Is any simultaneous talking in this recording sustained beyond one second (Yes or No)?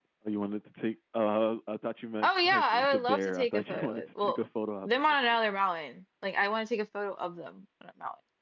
Yes